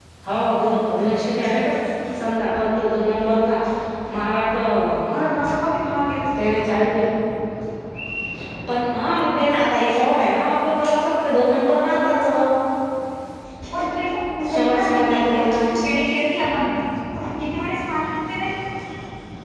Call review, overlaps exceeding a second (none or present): present